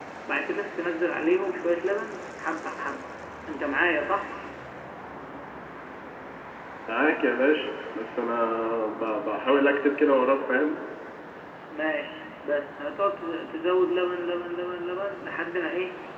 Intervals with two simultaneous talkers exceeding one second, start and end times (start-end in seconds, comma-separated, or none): none